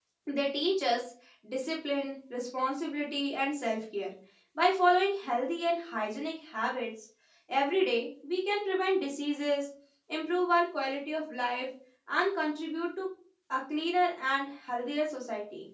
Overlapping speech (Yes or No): No